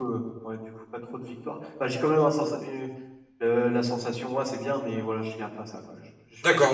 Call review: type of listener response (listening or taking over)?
taking over